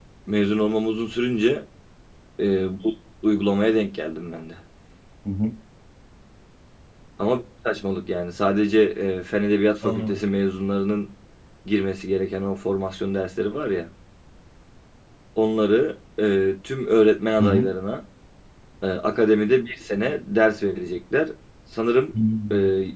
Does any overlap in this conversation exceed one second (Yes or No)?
No